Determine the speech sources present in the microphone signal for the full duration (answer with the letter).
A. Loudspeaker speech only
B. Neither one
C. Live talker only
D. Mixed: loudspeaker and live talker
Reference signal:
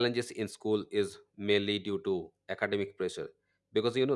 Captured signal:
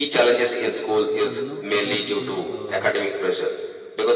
D